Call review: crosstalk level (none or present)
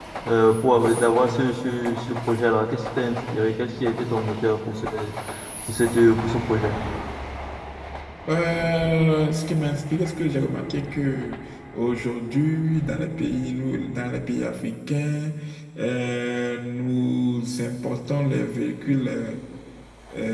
none